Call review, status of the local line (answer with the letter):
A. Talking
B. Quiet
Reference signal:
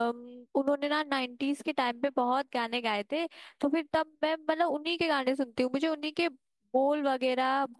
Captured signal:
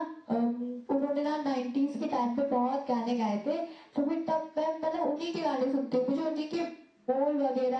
B